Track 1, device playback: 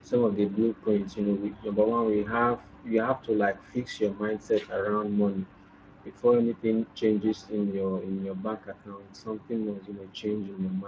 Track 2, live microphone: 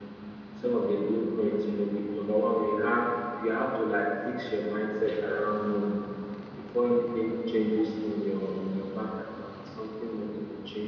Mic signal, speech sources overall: echo only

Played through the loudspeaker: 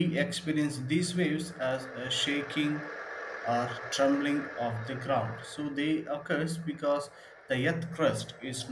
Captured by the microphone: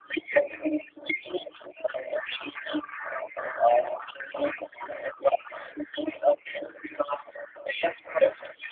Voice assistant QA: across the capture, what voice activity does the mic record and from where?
echo only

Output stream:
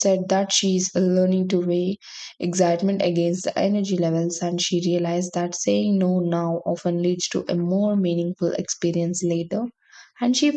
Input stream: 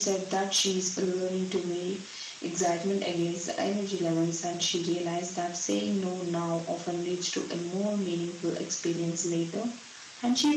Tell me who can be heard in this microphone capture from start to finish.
echo only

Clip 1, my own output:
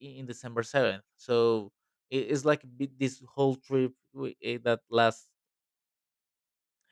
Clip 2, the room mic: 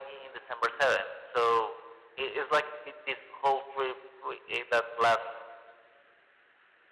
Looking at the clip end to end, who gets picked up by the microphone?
echo only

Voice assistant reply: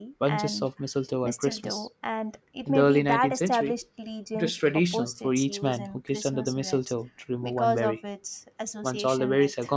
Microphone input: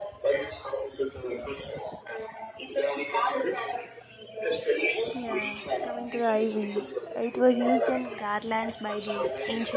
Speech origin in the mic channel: both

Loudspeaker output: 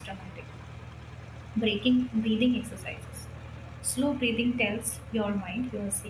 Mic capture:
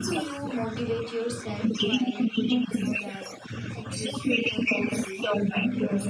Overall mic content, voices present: both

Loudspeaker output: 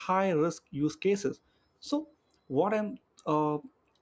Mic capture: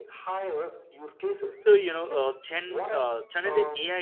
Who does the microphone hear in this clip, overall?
both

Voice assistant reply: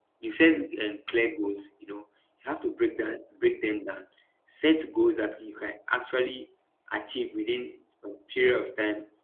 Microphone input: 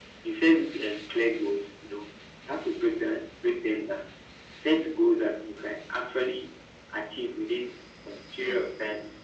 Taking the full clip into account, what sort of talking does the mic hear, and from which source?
echo only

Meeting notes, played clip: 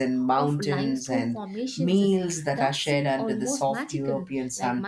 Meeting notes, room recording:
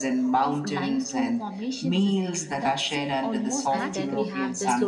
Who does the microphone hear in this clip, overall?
both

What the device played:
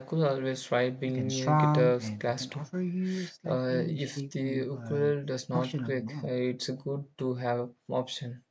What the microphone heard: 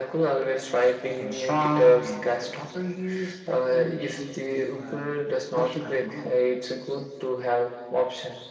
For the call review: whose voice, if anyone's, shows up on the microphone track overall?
echo only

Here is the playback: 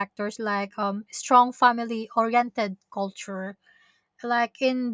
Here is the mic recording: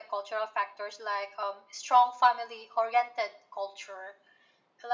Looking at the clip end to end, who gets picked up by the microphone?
echo only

